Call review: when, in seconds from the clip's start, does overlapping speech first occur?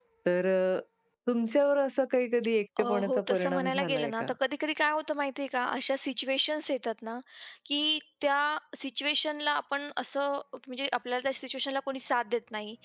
2.8 s

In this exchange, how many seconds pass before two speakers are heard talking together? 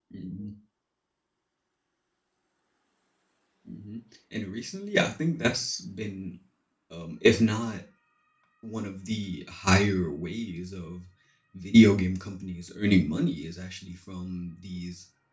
none

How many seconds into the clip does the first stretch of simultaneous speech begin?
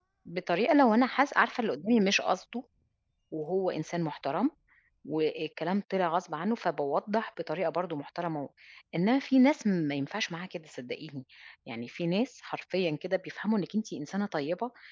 none

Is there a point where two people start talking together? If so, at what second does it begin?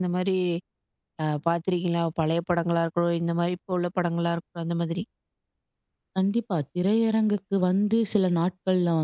none

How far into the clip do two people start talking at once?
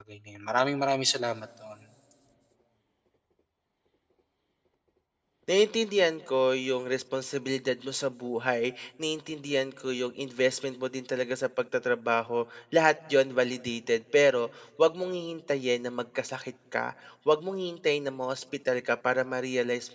none

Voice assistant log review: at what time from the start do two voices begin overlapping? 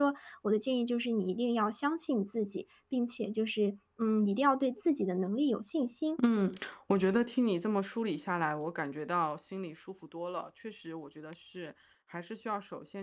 none

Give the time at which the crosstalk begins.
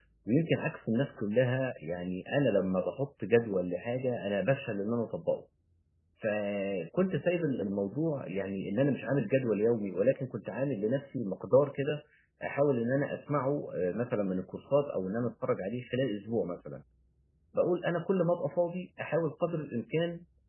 none

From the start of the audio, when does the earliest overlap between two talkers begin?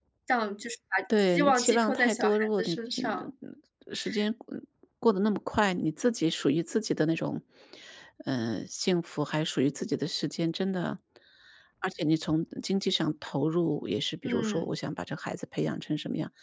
1.4 s

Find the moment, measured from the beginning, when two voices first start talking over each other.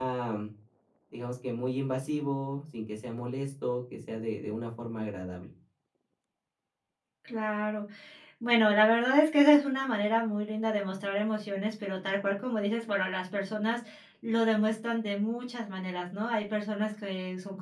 none

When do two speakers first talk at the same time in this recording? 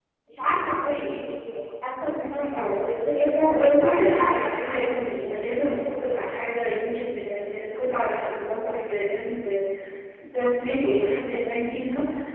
3.5 s

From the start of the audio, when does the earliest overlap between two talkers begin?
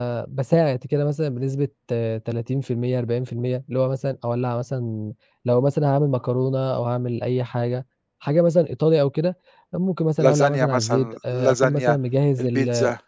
10.2 s

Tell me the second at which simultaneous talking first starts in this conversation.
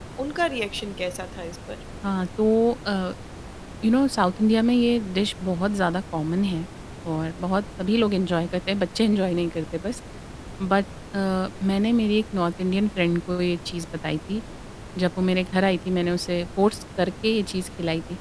none

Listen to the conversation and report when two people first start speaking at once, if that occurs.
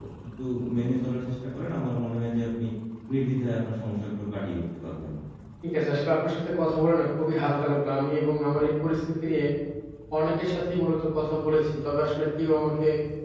none

